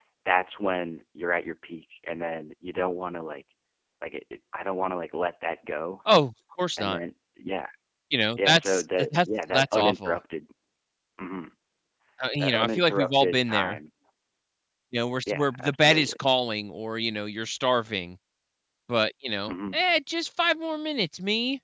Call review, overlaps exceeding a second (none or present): present